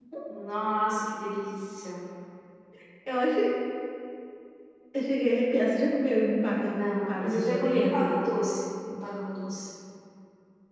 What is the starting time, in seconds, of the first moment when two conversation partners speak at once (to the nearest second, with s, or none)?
7 s